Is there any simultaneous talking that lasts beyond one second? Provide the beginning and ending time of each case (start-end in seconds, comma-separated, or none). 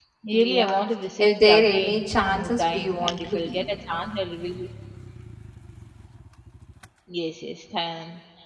1.2-3.6